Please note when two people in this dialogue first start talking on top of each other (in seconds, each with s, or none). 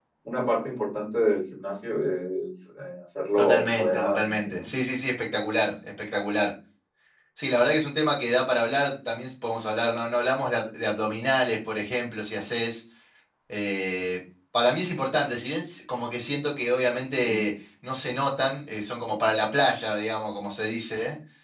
3.4 s